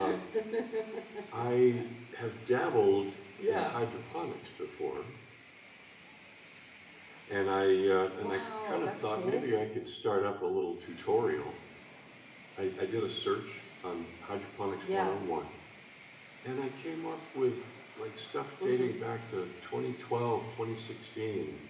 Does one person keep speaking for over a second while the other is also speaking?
Yes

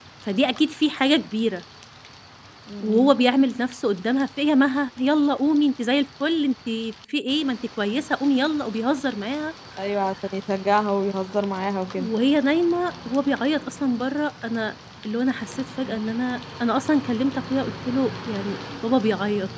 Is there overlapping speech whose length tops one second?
No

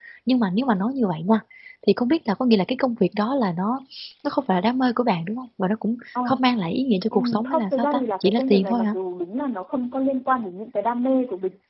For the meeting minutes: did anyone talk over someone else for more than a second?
Yes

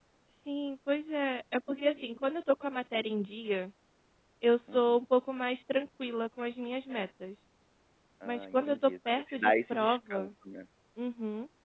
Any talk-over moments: Yes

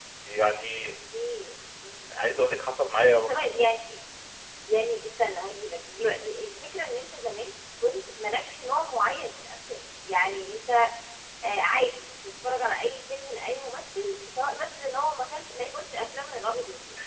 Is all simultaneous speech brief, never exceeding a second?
Yes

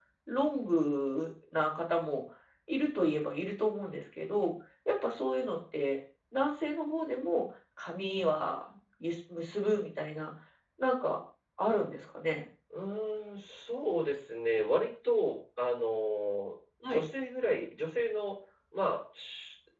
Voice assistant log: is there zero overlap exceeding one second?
Yes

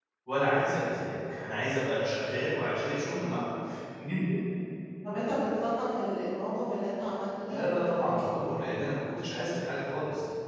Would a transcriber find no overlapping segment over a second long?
No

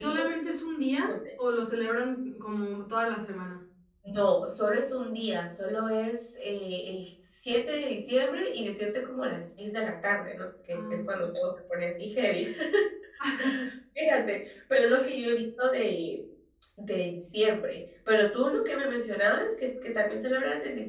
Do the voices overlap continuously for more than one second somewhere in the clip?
No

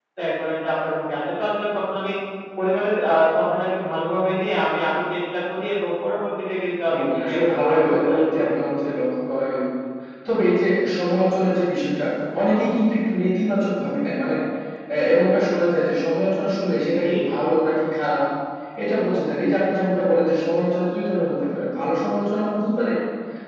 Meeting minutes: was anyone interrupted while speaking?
Yes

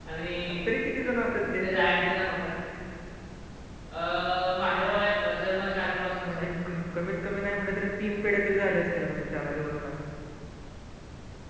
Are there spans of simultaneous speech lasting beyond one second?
No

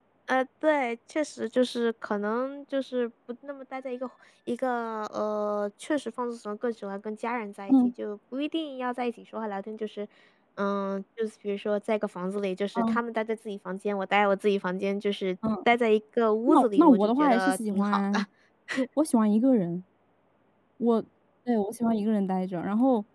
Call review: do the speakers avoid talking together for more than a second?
No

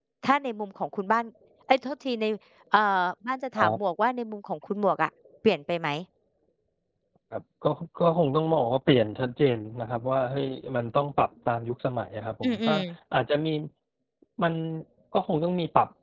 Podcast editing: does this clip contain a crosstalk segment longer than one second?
No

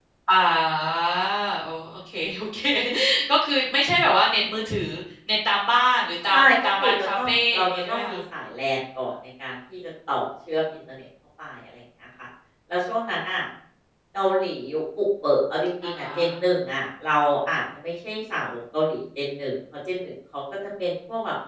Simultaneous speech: Yes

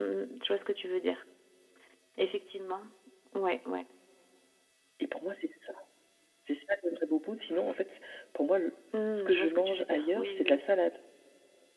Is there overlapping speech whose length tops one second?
Yes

